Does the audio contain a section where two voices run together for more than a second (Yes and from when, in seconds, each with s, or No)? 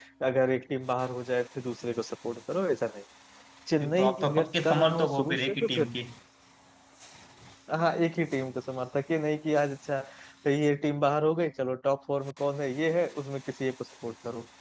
Yes, from 3.8 s